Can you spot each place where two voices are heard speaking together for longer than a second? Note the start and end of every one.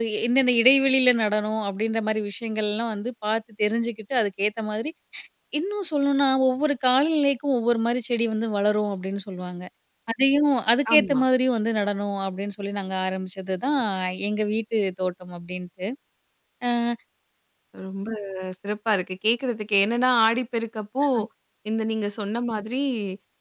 none

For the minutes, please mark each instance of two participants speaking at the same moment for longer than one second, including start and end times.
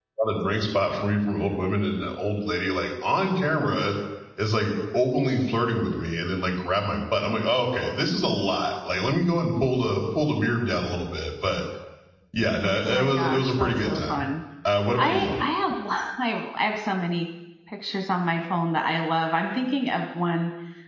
12.8-14.2

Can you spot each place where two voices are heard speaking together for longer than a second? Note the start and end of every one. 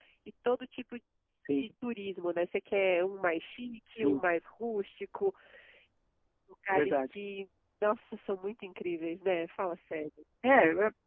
none

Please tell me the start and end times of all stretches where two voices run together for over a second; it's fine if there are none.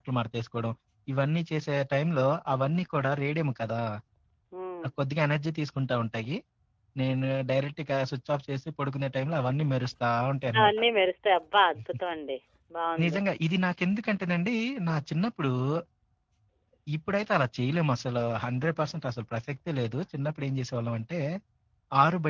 none

